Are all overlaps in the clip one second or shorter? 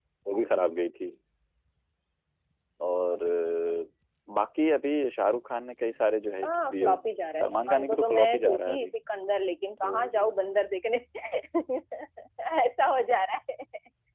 No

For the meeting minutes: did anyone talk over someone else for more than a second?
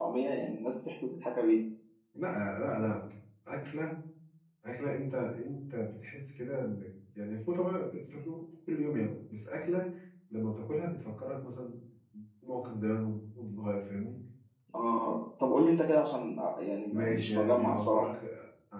Yes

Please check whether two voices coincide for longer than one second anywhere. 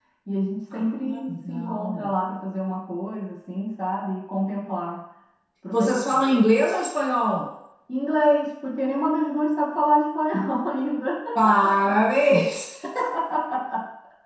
Yes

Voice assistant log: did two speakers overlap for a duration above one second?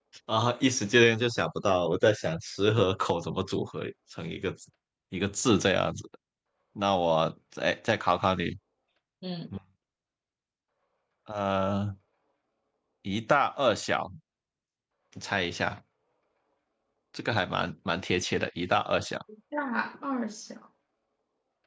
No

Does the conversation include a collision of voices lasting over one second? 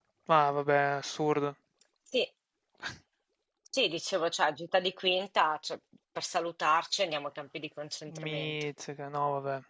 No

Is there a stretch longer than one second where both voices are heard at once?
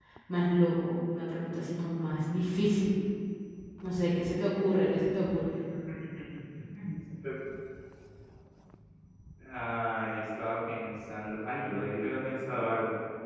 No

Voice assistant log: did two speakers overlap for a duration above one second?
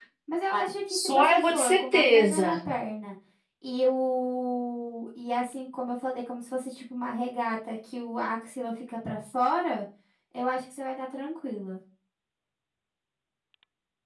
Yes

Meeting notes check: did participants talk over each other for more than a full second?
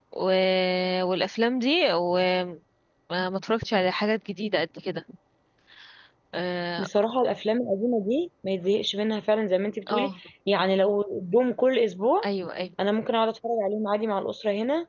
No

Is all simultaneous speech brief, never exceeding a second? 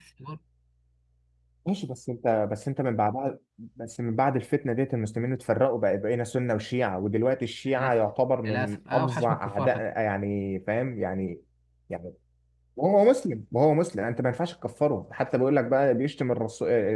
No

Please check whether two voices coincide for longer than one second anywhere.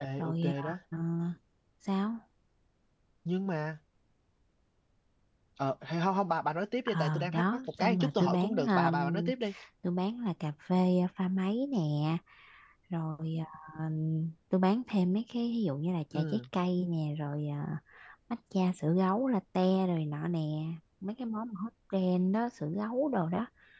Yes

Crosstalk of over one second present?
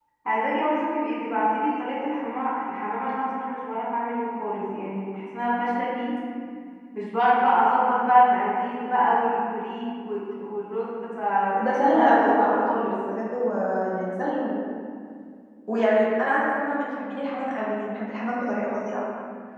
Yes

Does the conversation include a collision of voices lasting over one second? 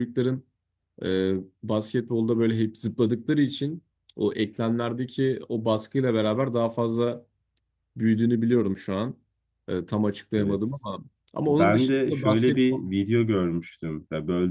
Yes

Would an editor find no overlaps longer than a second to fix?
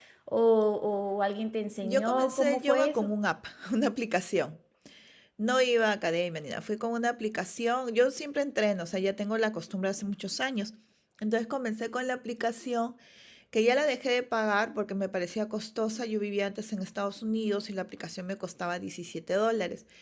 No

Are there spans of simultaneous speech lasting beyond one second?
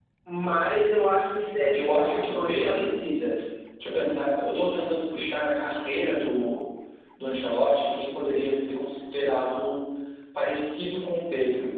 Yes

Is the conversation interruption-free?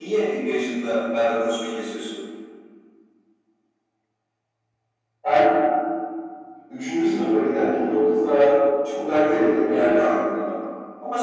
No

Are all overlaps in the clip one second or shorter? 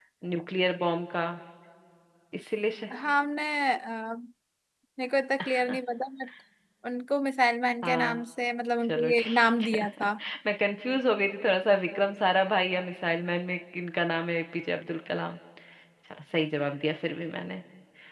No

